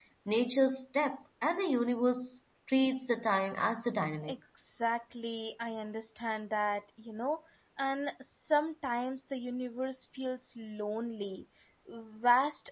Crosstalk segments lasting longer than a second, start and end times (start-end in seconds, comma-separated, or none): none